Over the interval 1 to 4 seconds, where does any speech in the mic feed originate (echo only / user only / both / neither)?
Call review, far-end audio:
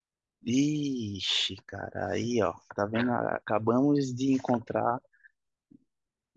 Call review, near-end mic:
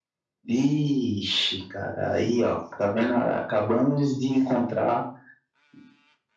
echo only